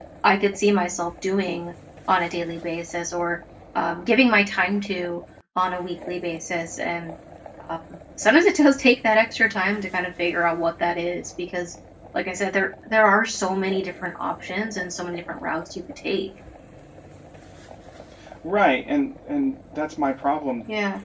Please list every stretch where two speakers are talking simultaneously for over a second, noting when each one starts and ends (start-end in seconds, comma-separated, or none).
none